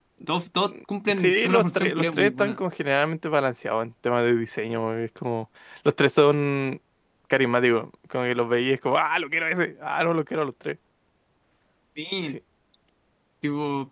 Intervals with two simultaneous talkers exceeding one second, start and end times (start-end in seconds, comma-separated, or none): 1.1-2.6